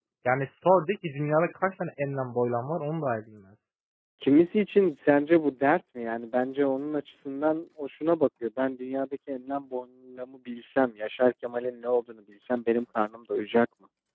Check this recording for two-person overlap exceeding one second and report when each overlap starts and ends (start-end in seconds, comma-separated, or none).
none